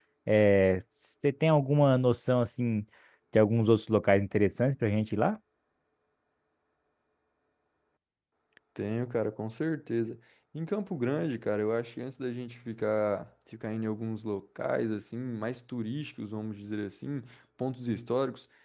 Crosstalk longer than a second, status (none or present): none